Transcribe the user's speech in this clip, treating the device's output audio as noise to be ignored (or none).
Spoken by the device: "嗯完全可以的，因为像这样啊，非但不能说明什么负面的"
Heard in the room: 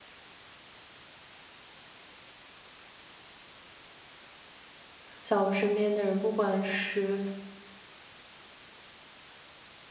像我身边的人，不管是